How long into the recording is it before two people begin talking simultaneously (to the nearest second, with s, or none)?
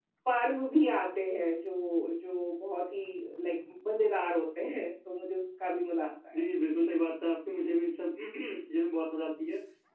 none